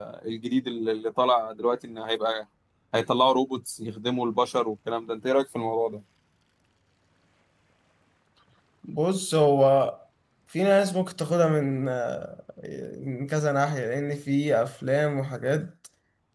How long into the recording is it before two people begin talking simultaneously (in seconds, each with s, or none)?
none